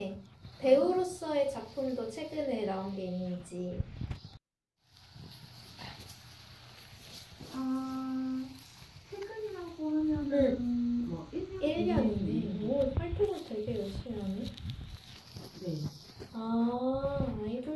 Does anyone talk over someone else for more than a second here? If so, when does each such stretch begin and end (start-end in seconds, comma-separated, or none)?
11.6-13.0